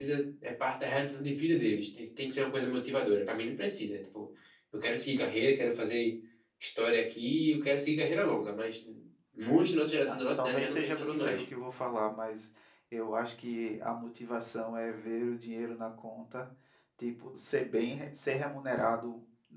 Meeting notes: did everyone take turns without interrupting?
No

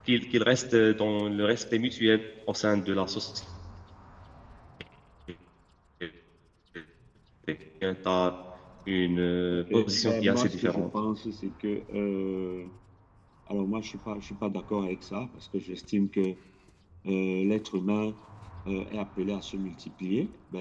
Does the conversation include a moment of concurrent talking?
Yes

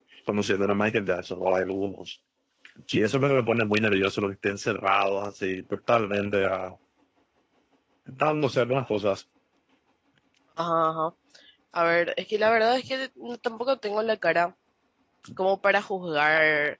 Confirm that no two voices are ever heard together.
Yes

